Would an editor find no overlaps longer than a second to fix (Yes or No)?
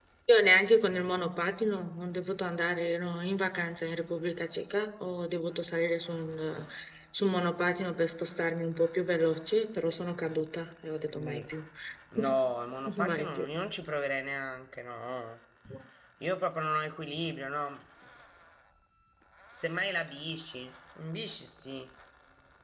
Yes